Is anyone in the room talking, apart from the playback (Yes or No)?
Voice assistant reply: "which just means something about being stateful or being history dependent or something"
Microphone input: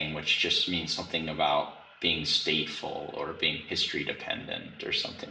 No